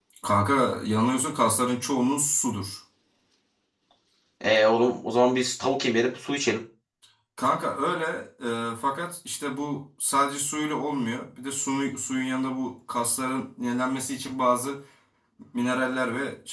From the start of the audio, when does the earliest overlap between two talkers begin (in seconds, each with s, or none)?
none